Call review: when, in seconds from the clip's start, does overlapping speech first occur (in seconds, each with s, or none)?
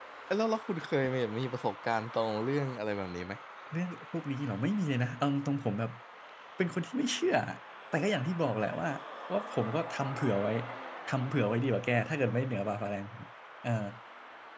none